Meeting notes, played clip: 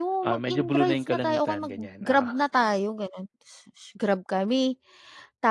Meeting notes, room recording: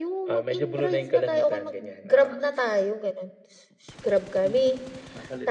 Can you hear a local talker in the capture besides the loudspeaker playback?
Yes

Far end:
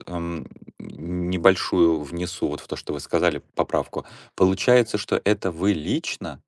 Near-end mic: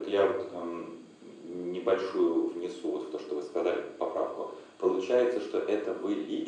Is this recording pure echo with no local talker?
Yes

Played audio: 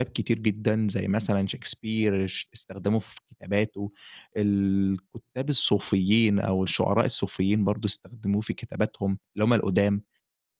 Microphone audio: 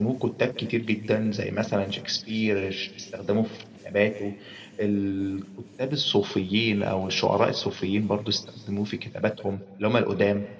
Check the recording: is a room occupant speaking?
No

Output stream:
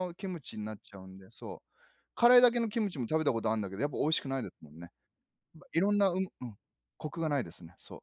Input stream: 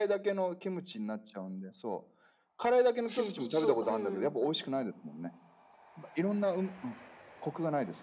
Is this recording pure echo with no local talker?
No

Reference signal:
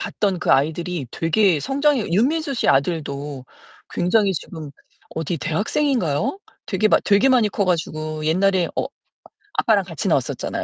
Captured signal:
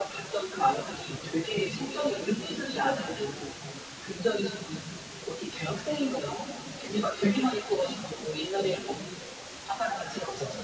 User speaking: No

